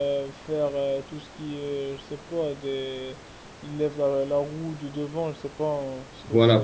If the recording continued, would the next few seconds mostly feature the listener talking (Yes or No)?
Yes